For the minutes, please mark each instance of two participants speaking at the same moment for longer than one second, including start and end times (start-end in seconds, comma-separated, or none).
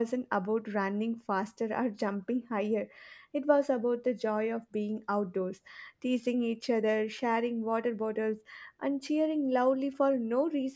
none